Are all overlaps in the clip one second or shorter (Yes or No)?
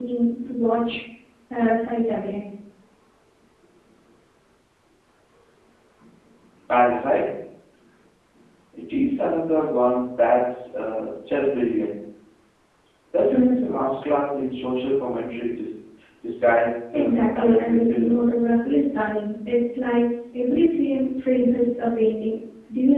No